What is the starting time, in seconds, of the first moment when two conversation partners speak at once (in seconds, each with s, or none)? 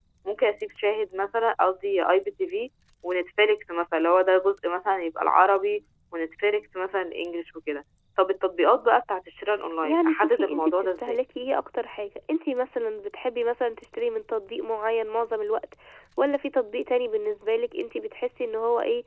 9.8 s